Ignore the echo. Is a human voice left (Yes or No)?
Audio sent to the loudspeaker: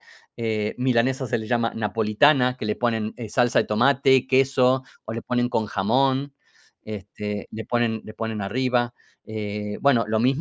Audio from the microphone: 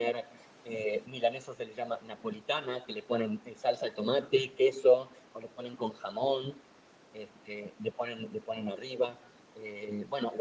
No